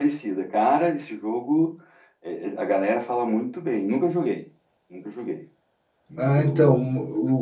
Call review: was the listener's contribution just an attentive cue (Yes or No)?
No